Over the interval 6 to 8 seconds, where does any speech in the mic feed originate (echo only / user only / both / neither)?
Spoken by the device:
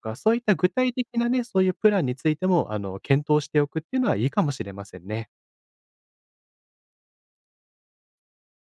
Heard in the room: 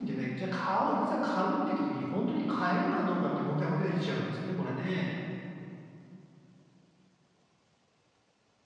neither